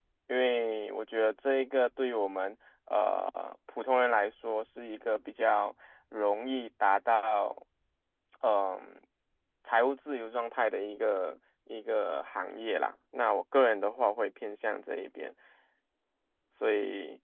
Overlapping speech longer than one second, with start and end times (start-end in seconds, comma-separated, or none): none